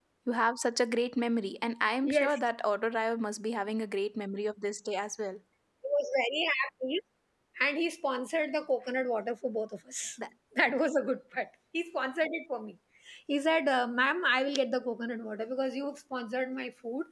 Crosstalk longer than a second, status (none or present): none